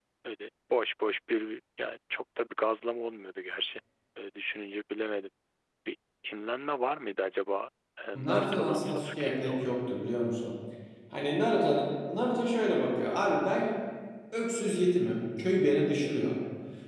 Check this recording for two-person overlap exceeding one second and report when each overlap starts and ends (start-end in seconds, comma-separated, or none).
8.2-9.7